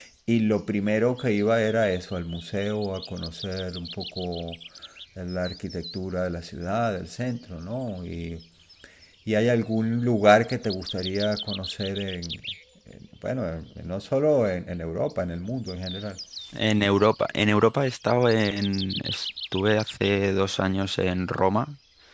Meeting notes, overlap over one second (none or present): none